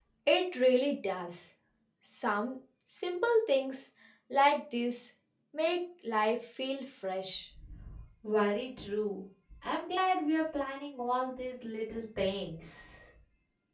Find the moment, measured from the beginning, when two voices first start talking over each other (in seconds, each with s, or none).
none